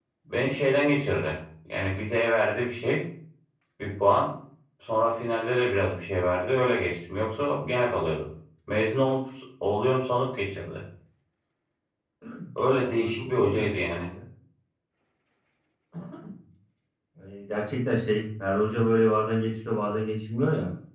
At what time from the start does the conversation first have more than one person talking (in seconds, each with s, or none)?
12.8 s